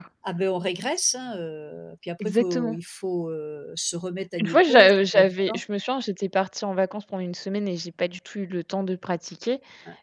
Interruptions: present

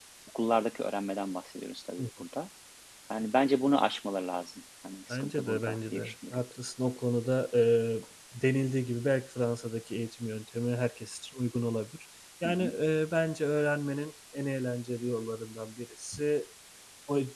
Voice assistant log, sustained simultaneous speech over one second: present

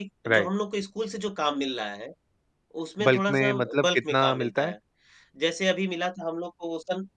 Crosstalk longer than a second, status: present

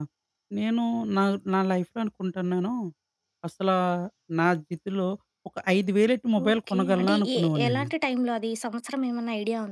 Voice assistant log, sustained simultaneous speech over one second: present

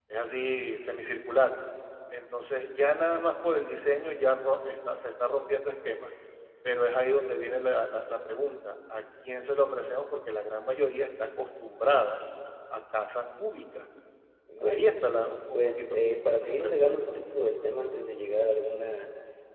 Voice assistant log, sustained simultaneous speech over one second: present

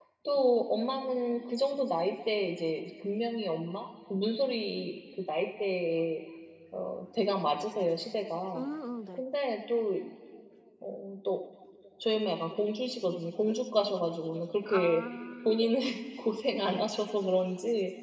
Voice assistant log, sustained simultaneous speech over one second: none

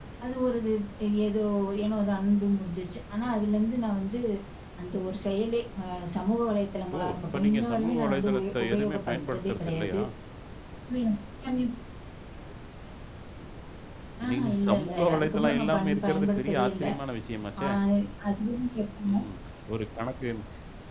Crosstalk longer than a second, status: present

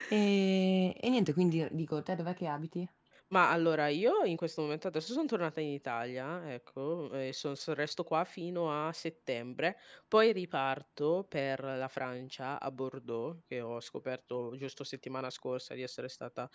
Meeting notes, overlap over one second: none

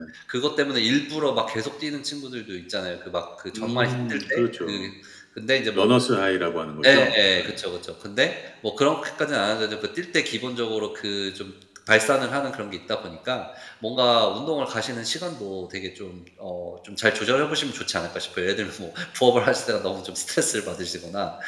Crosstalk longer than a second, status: present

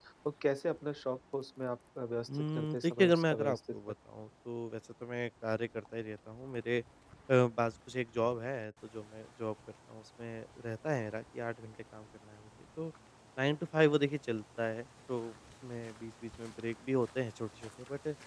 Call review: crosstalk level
present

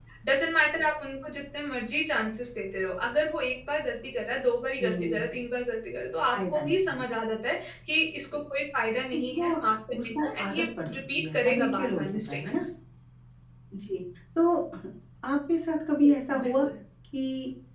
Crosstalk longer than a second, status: present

